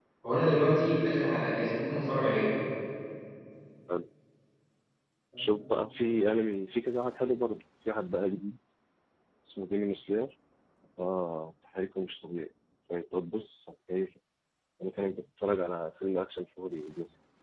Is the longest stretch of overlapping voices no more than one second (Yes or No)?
Yes